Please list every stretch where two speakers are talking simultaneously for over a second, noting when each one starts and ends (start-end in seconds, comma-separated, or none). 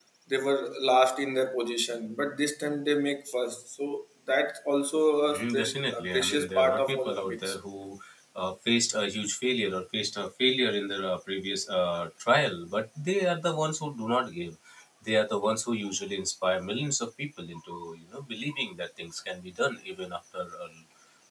5.3-7.6